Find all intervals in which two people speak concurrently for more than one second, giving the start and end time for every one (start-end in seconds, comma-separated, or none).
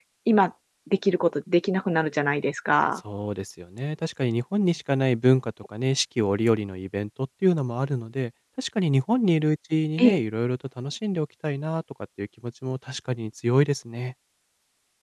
none